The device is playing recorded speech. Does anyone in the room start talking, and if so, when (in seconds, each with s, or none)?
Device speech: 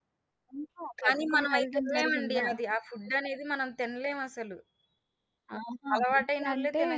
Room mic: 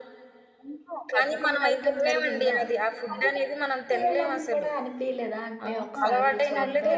3.1 s